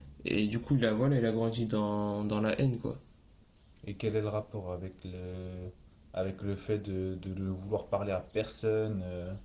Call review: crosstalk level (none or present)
none